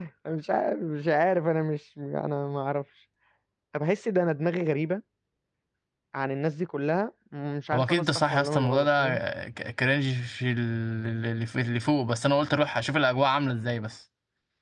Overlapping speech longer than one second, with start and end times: 7.7-9.1

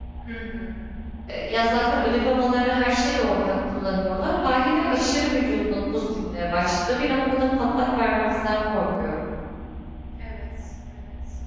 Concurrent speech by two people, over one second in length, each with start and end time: none

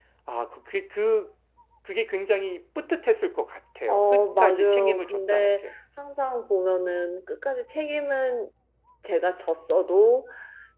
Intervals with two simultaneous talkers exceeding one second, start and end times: 3.9-5.7

